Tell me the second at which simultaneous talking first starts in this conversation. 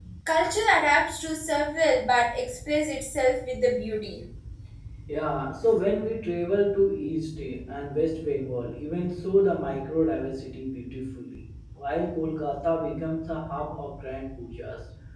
none

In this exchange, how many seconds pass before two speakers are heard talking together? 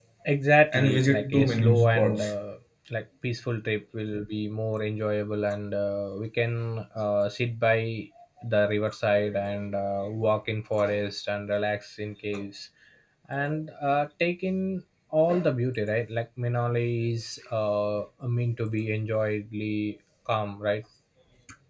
1 s

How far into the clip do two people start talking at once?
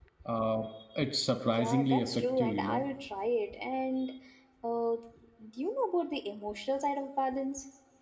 2 s

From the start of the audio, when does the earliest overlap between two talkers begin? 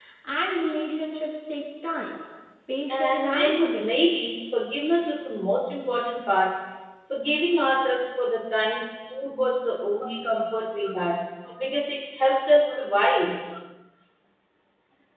3 s

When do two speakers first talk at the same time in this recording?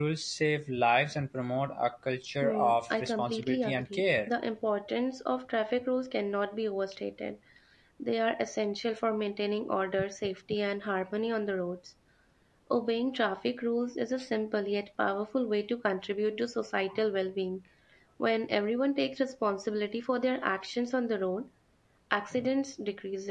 2 s

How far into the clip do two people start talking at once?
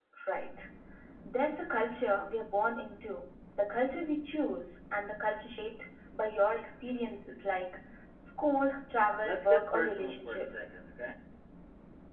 9 s

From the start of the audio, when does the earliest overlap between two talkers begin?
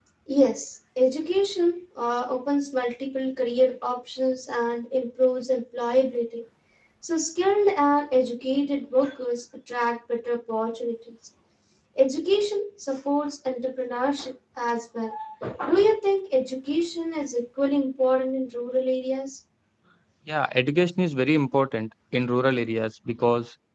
none

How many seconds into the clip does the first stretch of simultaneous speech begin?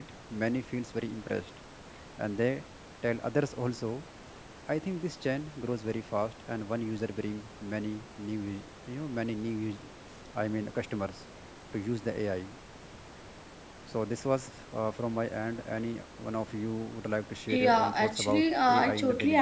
17 s

